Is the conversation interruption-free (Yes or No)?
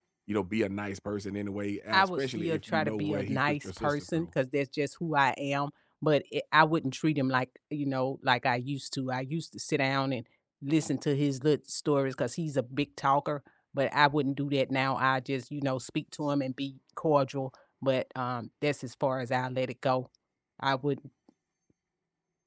No